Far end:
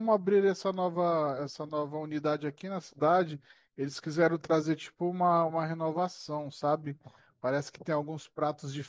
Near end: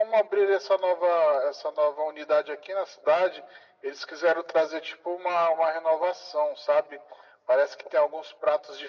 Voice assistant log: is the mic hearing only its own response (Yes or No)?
Yes